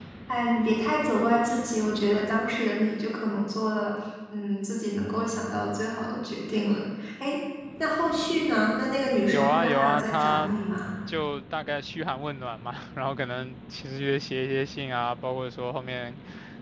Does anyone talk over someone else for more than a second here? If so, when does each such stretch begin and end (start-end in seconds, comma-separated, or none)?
9.3-10.5